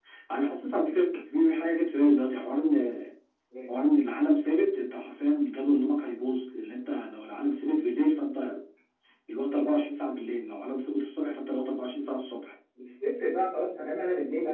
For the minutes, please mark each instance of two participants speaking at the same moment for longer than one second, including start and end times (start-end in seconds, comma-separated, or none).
none